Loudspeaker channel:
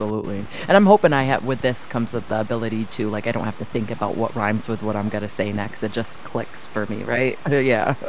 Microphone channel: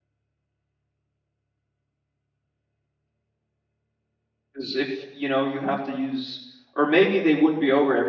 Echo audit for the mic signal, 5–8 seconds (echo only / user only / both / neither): user only